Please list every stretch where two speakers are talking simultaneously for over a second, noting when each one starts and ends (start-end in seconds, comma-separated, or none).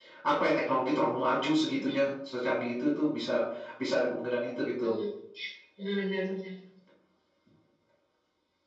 none